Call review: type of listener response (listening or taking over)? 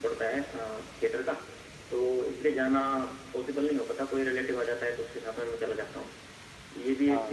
listening